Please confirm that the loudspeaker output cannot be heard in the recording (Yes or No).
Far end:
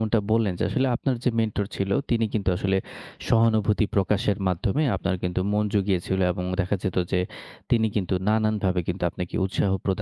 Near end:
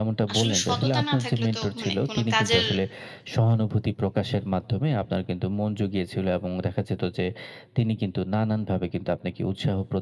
No